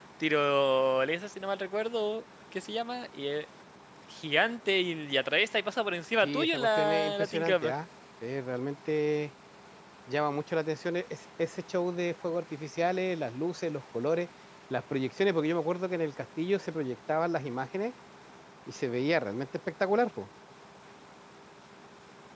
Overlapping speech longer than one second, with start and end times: 6.2-7.7

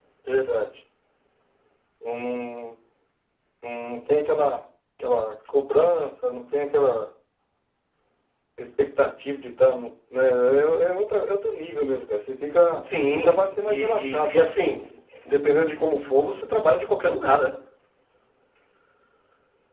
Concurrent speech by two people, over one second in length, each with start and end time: 12.9-14.5

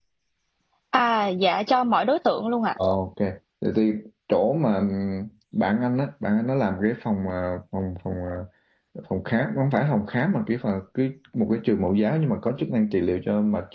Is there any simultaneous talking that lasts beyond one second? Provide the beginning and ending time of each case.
none

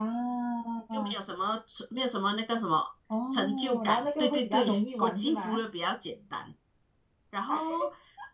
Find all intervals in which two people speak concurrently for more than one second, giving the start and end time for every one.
3.3-5.6

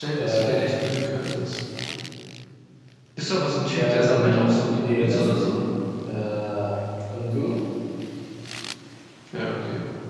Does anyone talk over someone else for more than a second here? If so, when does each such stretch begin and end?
3.8-5.5

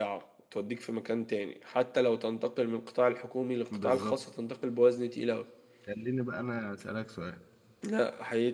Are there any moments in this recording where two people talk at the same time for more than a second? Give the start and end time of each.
none

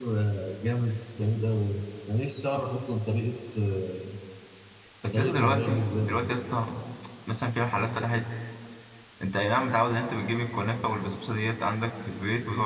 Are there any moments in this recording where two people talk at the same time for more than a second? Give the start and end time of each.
5.1-6.4

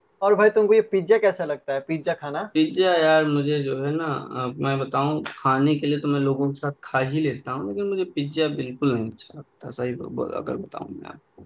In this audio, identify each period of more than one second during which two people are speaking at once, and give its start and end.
none

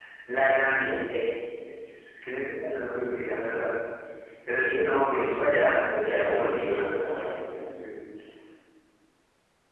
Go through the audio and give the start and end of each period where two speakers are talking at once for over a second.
5.1-7.1

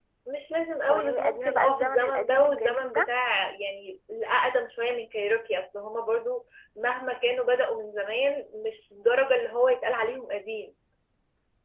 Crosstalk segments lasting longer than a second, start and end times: 0.9-3.1

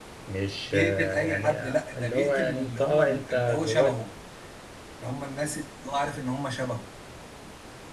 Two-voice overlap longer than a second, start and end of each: 0.6-3.9

